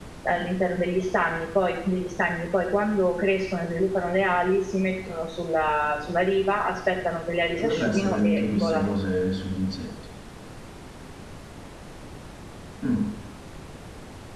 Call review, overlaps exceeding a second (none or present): present